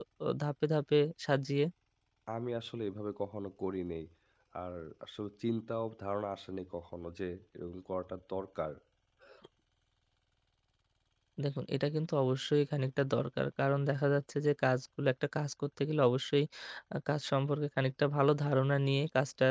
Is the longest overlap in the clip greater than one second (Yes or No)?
No